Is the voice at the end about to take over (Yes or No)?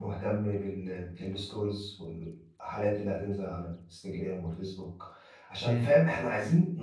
No